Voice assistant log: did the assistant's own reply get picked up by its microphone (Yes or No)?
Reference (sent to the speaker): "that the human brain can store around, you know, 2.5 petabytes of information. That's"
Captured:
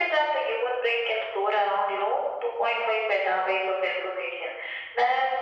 Yes